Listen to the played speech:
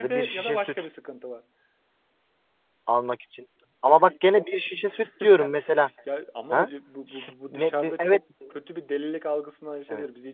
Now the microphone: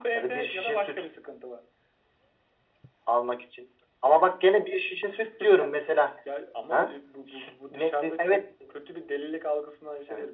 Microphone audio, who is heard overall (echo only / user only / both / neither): echo only